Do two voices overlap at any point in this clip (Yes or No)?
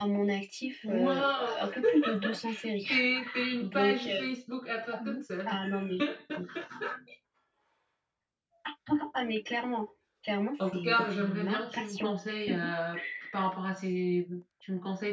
Yes